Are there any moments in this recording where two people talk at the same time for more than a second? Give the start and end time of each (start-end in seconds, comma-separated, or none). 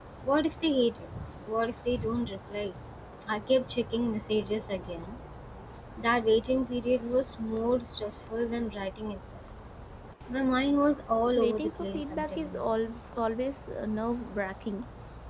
11.4-12.6